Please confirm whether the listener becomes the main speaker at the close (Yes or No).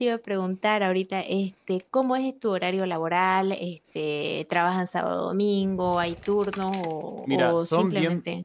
Yes